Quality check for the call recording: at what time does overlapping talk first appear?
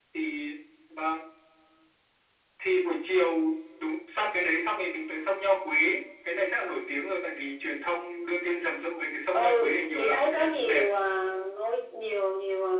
9.3 s

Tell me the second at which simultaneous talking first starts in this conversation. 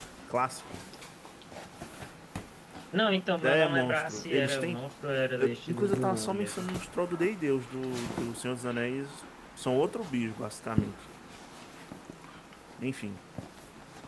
3.4 s

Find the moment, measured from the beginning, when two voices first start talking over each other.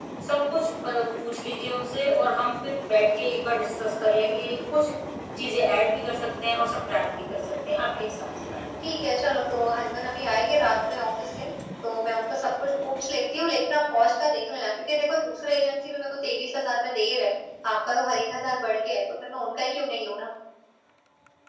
none

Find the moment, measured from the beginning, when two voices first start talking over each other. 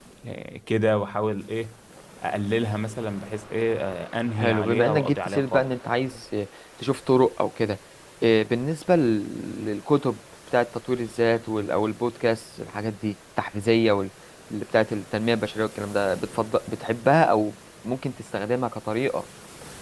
4.4 s

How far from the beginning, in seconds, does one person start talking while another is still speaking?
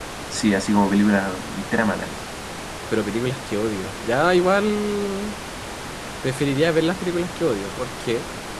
none

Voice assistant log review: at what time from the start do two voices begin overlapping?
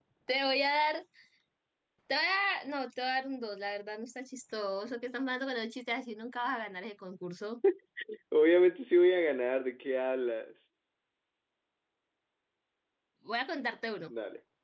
none

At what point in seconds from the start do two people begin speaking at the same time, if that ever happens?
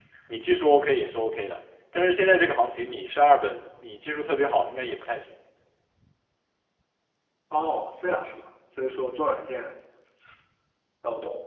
none

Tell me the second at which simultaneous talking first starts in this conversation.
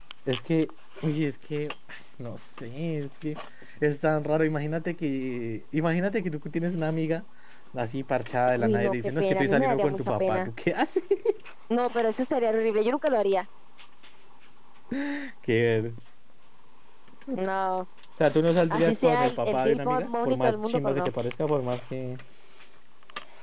8.6 s

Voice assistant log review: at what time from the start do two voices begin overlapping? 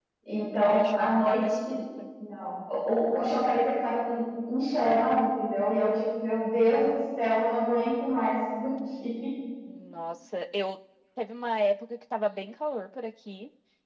0.6 s

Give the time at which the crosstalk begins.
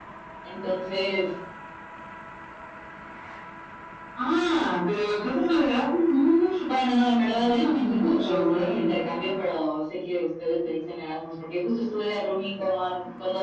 7.3 s

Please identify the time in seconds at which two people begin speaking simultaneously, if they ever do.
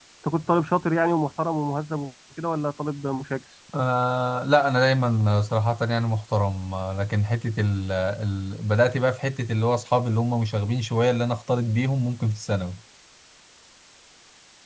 none

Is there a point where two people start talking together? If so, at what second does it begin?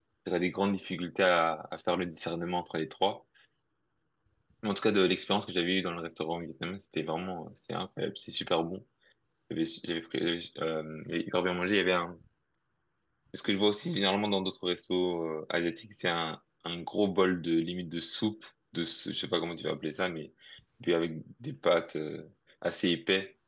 none

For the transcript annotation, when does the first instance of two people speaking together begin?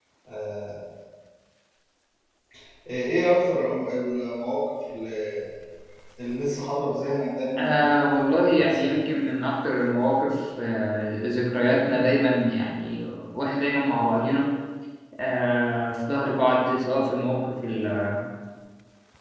7.6 s

